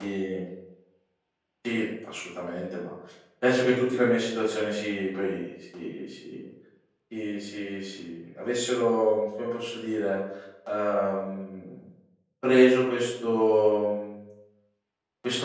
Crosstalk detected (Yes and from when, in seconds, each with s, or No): No